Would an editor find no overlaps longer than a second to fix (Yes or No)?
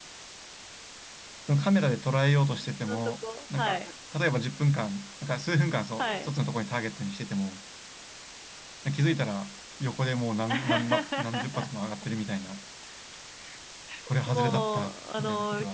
No